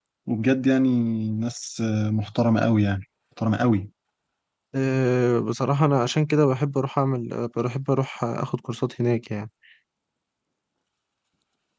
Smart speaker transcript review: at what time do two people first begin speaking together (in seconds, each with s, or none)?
none